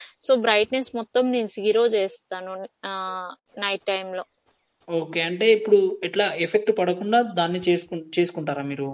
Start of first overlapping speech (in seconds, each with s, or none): none